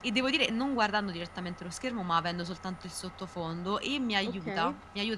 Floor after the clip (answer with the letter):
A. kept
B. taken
A